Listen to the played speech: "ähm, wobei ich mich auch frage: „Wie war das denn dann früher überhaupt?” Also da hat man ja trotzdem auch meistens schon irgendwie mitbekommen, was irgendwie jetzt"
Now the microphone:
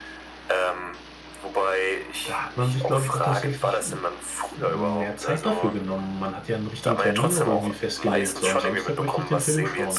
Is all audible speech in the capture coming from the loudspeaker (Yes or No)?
No